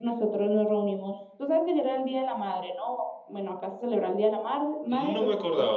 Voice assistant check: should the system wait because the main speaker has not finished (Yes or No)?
No